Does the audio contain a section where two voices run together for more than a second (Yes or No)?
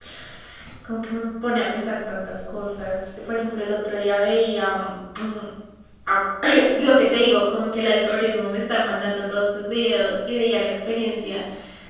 No